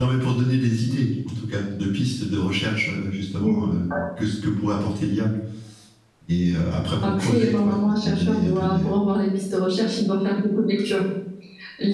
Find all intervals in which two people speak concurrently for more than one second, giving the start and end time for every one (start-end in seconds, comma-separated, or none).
7.0-8.8